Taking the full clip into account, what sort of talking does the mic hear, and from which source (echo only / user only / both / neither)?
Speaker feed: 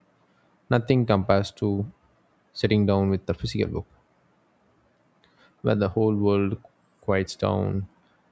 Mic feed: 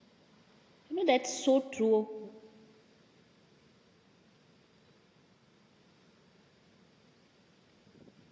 user only